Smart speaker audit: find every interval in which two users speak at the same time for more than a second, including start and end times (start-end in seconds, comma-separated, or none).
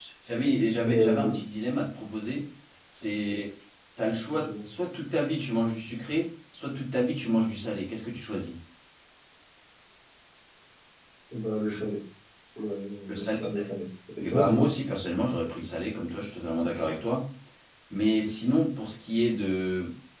none